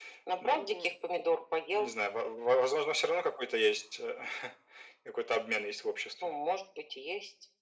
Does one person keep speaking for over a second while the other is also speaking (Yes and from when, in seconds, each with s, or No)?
No